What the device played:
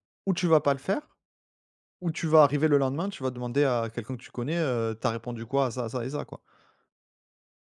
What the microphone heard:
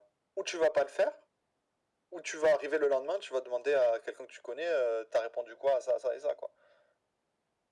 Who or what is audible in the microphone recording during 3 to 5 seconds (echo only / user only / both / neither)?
echo only